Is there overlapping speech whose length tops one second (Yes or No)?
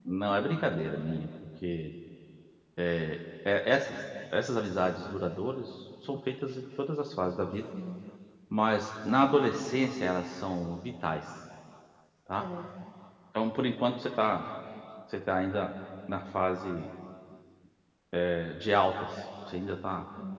No